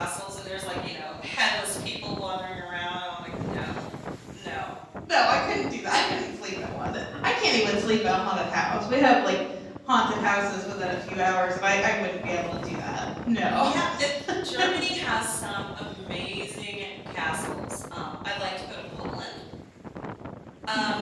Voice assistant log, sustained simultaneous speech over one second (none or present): none